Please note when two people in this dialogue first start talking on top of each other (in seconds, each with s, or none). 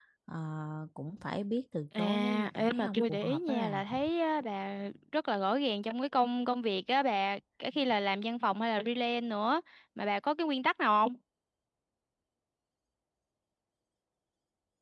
1.9 s